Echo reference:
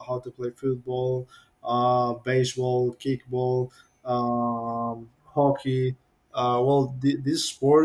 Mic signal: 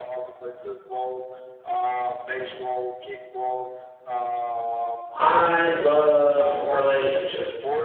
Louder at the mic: user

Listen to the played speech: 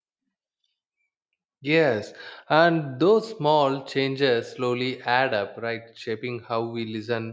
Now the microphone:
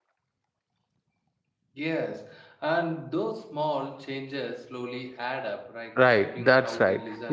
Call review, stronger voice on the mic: user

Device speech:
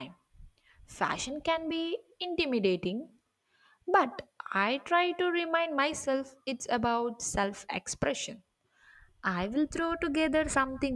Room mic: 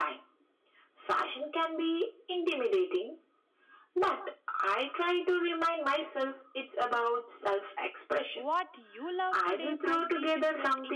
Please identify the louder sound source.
echo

